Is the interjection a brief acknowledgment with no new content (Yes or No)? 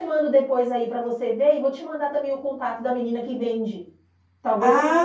No